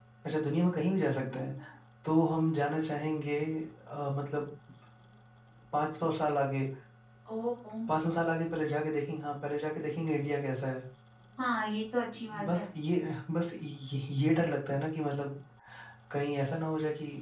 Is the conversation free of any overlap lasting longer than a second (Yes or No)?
Yes